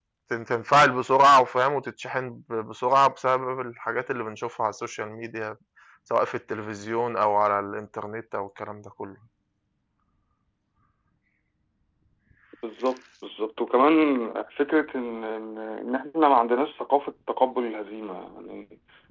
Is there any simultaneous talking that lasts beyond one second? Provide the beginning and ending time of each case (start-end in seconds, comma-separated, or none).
none